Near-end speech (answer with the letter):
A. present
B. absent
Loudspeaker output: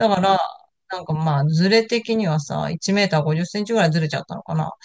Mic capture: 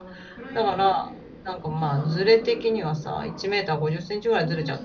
A